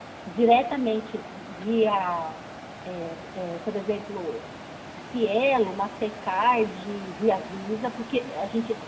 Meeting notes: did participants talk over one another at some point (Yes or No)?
No